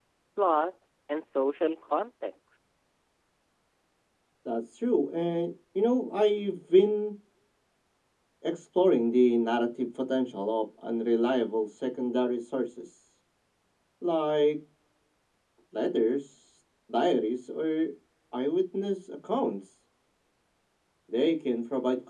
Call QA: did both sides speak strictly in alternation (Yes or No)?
Yes